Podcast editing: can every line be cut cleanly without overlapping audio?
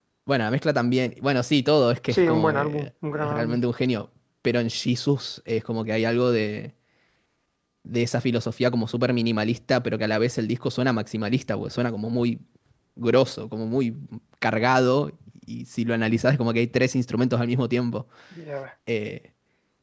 No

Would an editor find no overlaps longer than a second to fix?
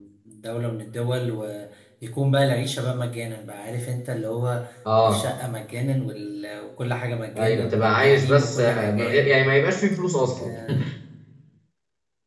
No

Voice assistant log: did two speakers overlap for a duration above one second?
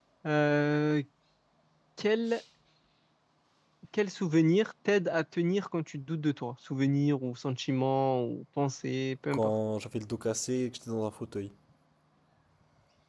No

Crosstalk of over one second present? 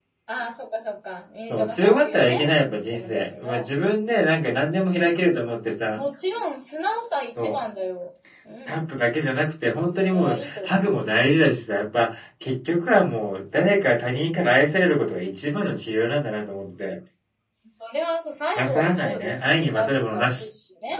Yes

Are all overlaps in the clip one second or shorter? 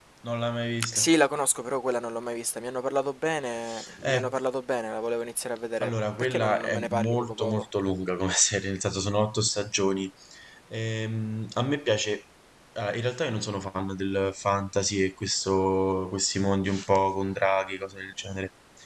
No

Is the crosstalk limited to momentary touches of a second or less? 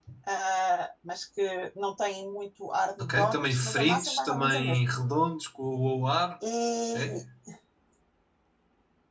No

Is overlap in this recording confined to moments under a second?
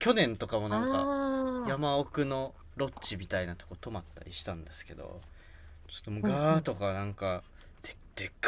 Yes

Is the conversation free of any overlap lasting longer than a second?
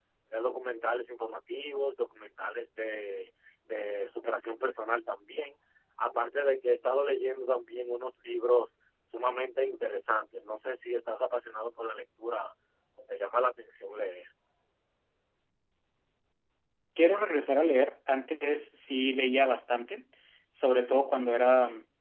Yes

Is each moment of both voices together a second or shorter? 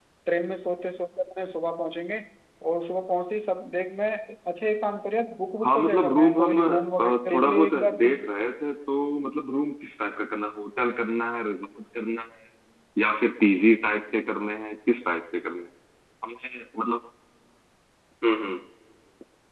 No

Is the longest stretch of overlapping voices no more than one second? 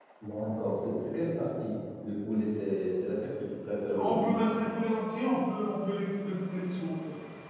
Yes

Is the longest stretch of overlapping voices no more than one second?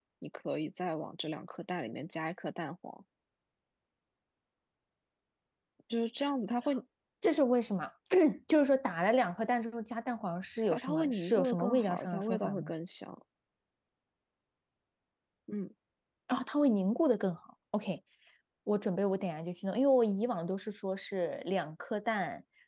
No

